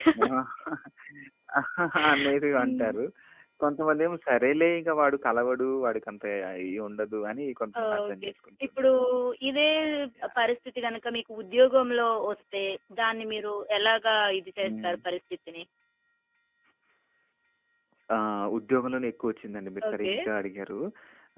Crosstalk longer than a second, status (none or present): none